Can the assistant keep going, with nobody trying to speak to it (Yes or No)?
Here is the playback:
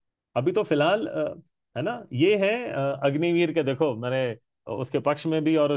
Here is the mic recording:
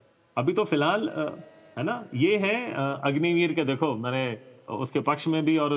Yes